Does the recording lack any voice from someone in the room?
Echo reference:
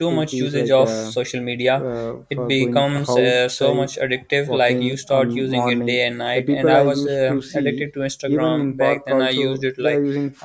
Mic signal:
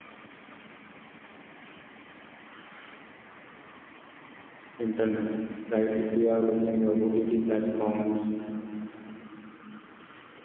No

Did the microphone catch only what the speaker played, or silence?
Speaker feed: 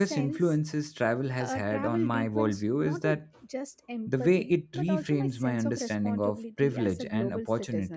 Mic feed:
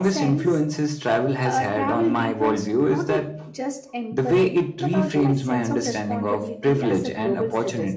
Yes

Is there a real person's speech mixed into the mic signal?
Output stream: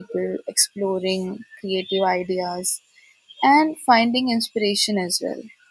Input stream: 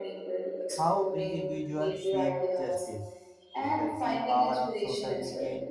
Yes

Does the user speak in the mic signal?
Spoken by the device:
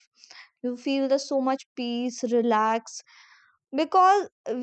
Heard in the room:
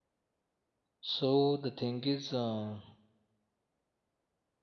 Yes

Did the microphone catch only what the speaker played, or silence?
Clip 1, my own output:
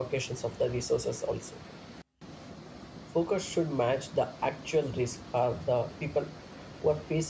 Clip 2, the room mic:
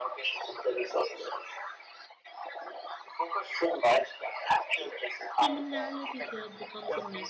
No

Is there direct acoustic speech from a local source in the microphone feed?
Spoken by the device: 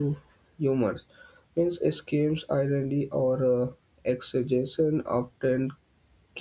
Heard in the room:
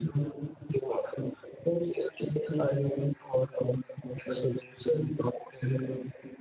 No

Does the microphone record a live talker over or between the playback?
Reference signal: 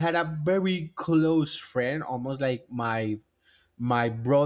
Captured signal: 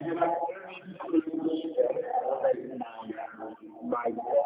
No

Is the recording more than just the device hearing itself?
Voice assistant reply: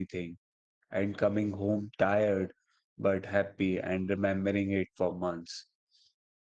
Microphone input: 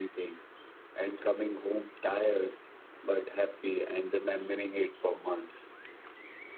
No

